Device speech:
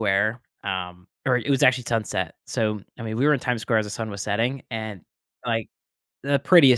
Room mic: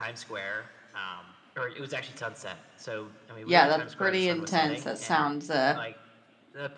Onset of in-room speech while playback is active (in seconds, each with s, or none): 3.5 s